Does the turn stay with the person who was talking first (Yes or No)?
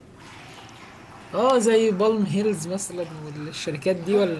No